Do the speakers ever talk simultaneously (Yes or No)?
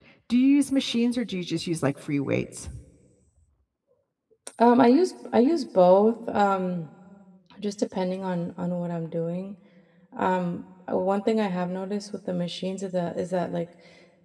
No